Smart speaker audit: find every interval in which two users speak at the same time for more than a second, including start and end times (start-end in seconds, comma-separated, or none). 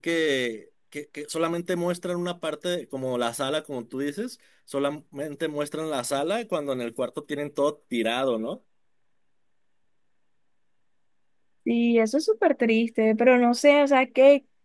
none